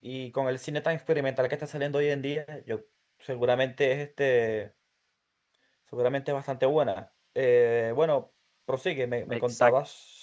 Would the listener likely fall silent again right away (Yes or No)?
No